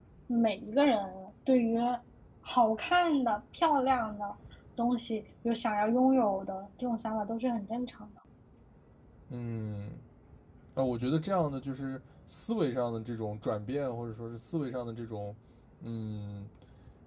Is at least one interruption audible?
No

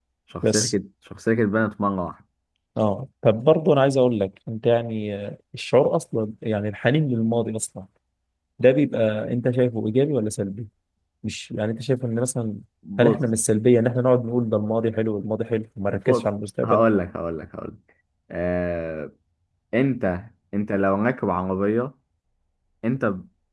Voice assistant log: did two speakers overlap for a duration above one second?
No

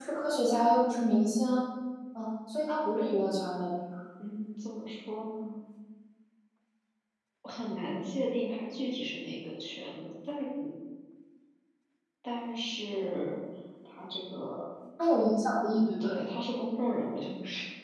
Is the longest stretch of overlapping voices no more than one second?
Yes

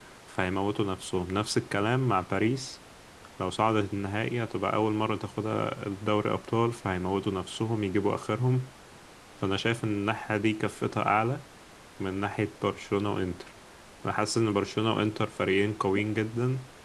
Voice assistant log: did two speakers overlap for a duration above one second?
No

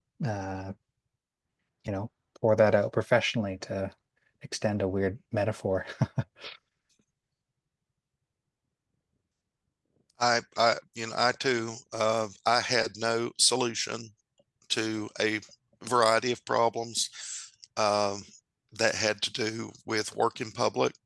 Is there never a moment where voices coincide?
Yes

